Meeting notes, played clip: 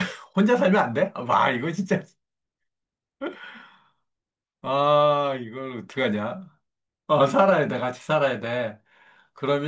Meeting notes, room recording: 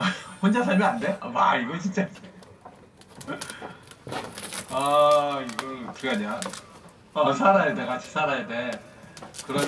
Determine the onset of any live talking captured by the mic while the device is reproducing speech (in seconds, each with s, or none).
none